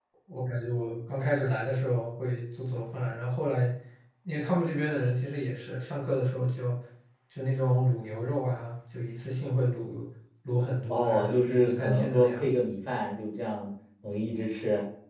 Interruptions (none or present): present